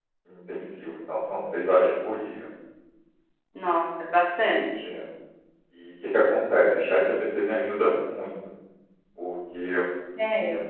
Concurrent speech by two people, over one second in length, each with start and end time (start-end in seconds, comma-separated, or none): none